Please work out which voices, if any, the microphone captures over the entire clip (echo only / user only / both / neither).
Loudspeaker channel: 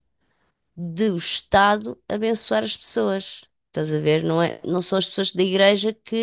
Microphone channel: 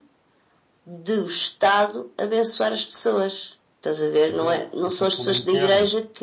both